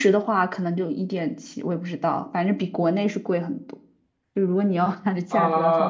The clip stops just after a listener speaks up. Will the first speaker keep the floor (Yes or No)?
No